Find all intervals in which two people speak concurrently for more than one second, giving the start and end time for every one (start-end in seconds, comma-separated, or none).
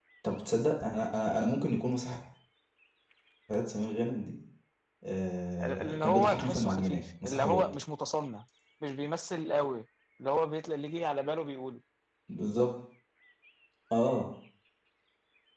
5.6-7.6